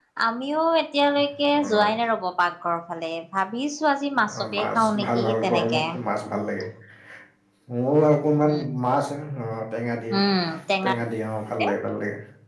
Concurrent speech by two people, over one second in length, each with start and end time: 4.4-5.8

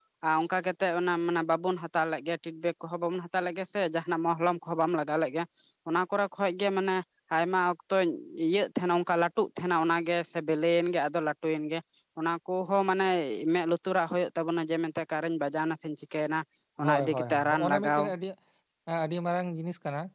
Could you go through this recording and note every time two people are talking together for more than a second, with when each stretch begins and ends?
16.8-18.1

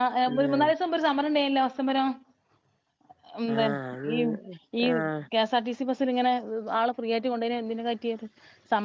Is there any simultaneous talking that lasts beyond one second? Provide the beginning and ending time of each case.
none

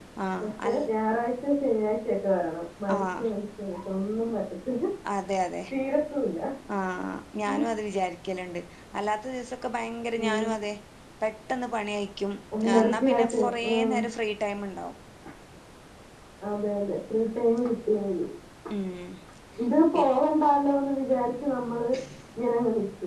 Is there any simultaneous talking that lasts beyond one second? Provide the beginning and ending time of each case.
12.7-14.0

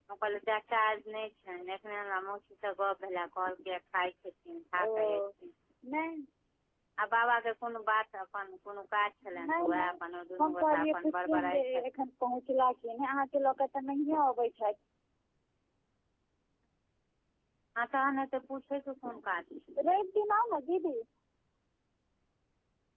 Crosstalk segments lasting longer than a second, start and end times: 9.2-11.8

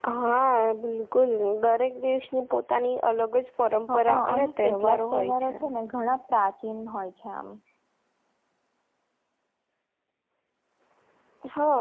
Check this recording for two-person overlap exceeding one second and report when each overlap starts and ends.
3.9-5.5

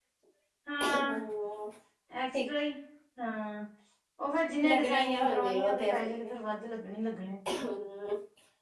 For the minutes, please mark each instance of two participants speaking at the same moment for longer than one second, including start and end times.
4.6-6.3

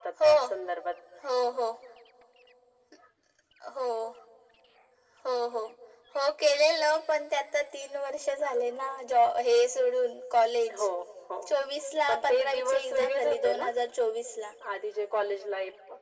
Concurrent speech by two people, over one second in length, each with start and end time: 12.1-13.6

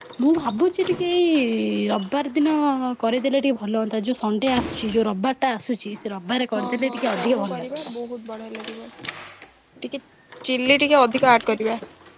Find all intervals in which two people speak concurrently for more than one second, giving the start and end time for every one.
6.6-7.9

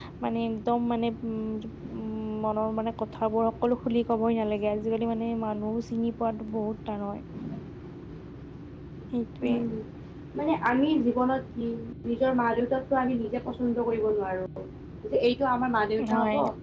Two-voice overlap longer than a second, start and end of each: none

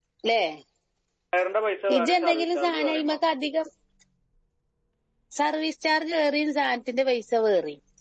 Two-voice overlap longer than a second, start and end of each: 2.0-3.2

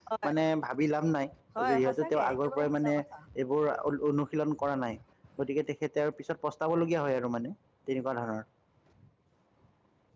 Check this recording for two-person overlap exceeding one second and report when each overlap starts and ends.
1.7-2.9

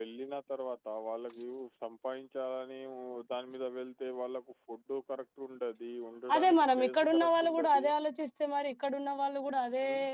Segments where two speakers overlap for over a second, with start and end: 6.3-7.8

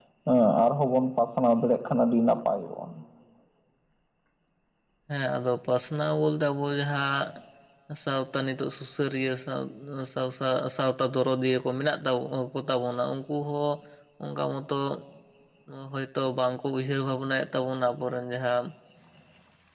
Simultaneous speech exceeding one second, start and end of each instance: none

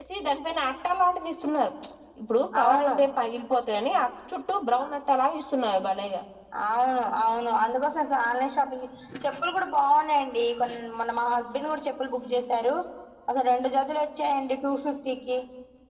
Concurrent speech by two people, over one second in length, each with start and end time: none

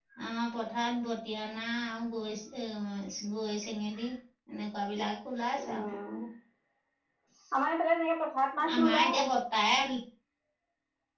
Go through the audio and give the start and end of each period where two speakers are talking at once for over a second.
none

